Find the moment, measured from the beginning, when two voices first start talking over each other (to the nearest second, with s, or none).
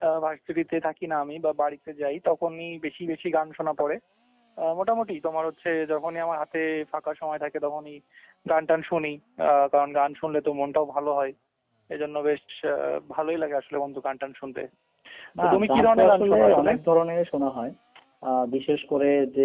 15 s